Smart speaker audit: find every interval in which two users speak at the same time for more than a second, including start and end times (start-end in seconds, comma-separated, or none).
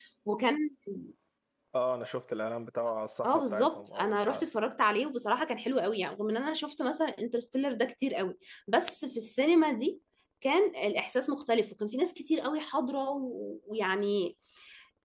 3.2-4.5